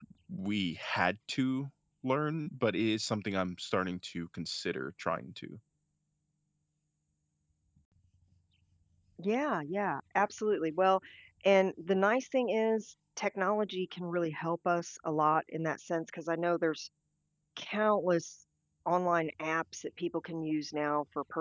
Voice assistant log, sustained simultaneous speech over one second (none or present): none